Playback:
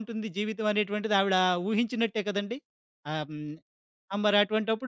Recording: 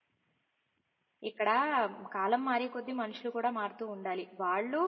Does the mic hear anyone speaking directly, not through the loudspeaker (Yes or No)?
Yes